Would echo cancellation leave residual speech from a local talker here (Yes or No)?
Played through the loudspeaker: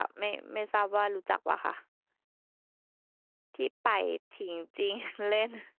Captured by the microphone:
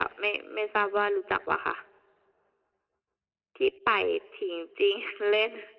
No